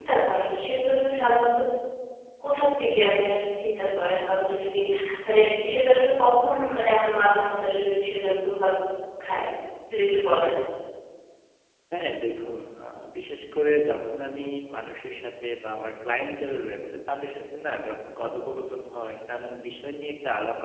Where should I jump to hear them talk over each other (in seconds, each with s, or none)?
none